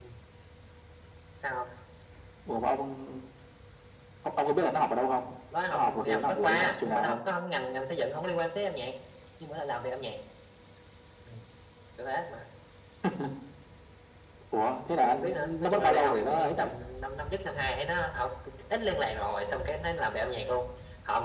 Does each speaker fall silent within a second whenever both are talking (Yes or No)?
No